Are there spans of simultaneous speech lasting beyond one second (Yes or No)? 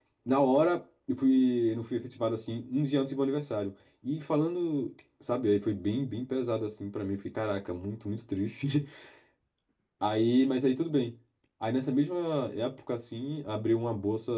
No